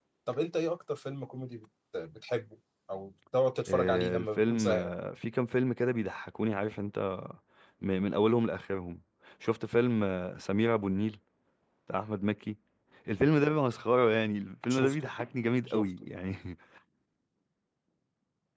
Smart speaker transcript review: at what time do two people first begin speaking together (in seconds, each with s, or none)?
3.7 s